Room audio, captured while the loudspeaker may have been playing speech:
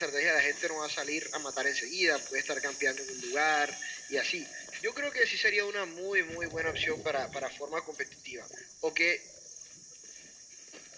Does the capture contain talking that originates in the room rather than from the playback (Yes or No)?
No